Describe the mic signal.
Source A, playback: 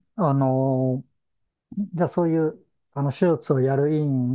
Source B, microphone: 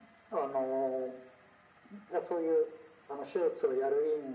echo only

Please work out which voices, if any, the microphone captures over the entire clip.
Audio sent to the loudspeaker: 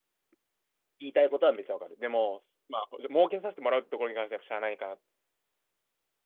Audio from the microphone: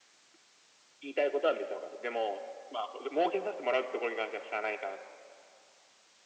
echo only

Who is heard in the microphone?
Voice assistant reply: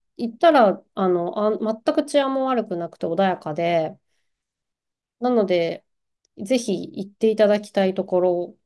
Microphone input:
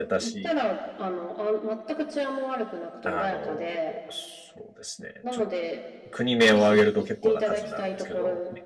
both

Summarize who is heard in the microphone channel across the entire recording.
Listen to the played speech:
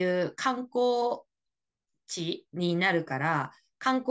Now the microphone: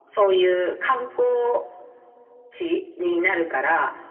echo only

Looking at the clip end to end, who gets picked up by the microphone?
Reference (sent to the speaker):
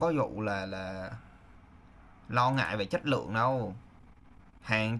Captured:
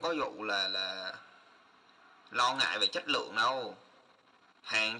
echo only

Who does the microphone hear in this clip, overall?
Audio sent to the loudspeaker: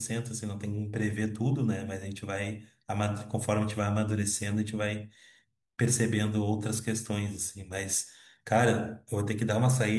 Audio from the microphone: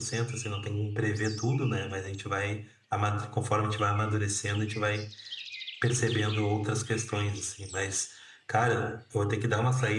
echo only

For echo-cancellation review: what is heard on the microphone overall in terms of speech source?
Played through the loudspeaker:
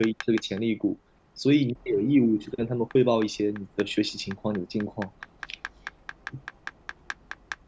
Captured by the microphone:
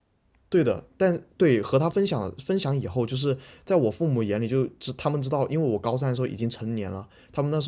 user only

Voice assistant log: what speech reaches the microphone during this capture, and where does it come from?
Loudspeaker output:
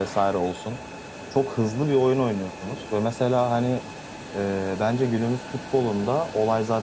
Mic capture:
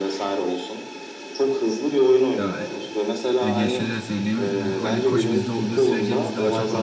both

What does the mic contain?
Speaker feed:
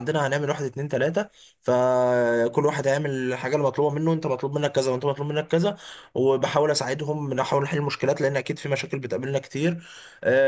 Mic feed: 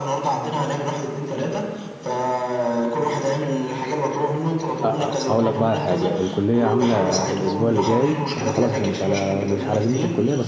both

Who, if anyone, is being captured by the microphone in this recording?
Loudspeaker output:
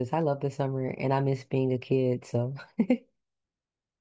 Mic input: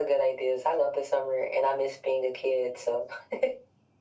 echo only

